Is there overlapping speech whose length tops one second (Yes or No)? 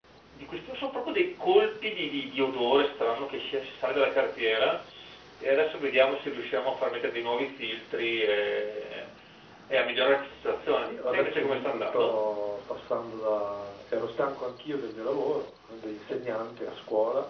Yes